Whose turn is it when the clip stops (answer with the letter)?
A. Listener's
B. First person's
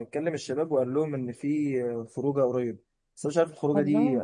B